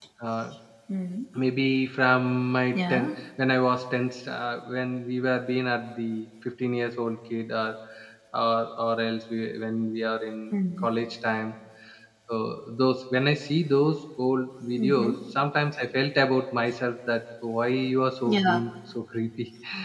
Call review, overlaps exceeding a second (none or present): none